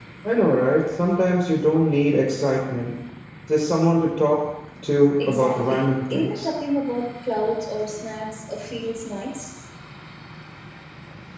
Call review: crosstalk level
present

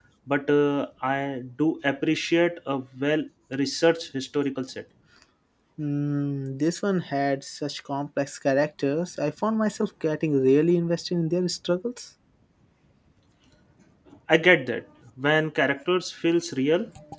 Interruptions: none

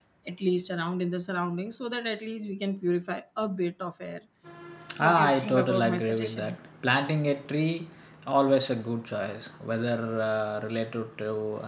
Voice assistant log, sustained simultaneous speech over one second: present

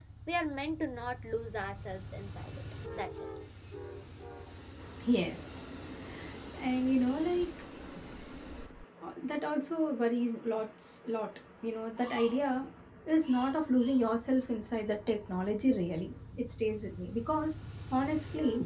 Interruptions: none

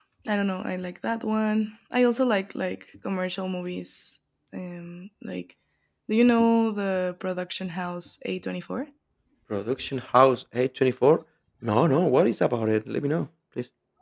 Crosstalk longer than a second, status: none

